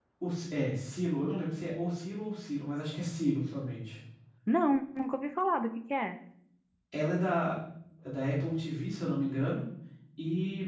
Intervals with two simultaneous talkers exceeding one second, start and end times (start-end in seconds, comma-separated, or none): none